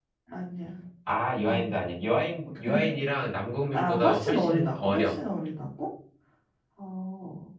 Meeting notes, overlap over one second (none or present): present